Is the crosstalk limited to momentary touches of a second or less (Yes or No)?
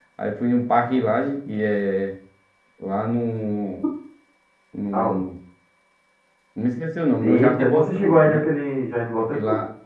No